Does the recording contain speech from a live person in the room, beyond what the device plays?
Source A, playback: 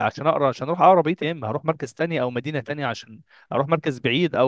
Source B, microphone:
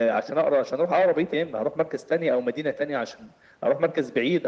No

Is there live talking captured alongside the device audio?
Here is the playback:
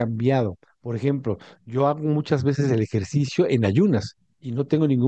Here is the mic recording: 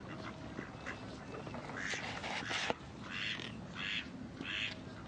No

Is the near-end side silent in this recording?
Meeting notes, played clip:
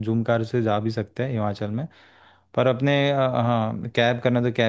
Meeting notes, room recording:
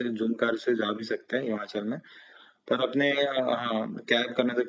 Yes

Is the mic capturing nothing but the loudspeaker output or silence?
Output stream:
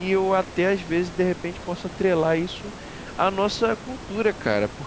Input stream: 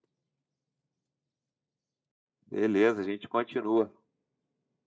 No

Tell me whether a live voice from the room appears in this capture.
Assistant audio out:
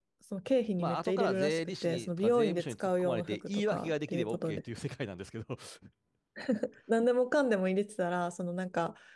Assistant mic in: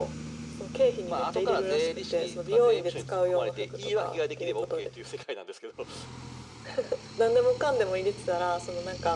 No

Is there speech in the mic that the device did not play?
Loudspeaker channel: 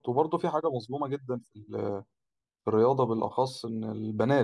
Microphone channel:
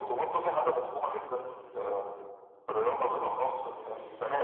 No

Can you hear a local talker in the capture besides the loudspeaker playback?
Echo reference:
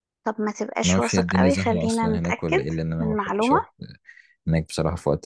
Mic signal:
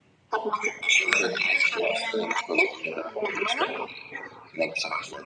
No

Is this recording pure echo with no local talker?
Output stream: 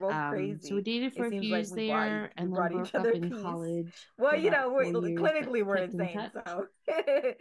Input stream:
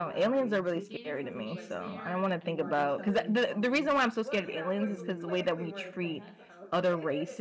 No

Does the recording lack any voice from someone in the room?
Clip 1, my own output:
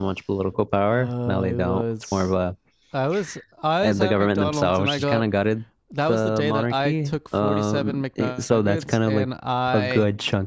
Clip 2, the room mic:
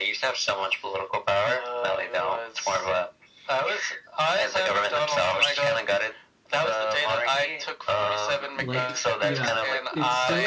No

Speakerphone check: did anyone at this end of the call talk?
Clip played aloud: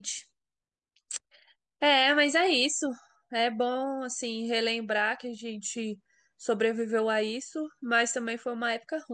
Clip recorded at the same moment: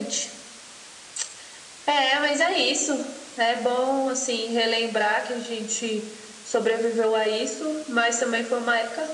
No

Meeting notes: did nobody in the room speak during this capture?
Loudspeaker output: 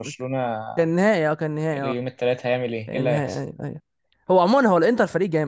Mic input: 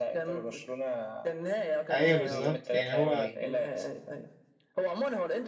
No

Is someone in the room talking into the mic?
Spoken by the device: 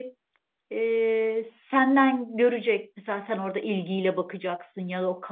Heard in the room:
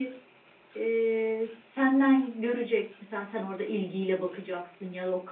No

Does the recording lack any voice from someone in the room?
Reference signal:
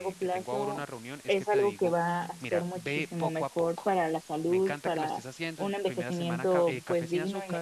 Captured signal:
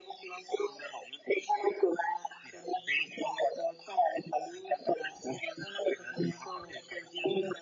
Yes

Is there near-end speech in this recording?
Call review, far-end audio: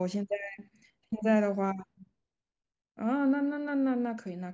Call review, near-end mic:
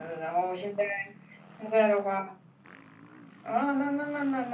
No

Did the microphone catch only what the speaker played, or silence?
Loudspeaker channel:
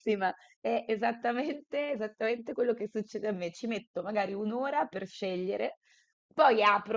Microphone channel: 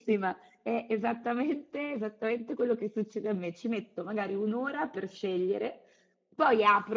Yes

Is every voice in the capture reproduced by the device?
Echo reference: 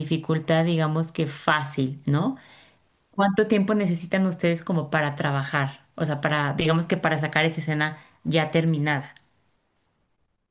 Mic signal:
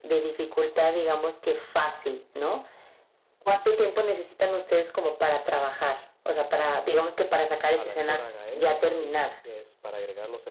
No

